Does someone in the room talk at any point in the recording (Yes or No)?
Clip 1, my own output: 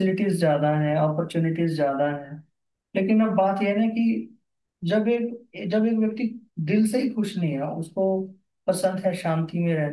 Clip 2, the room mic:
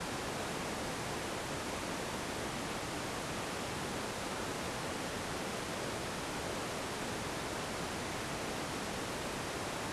No